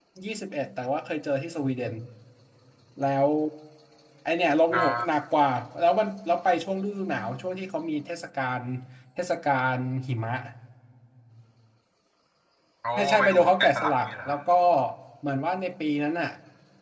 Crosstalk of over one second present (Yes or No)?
Yes